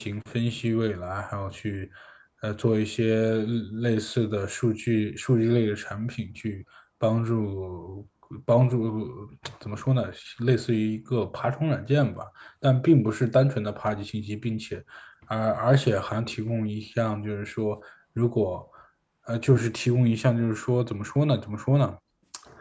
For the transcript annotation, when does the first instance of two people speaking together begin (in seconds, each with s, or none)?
none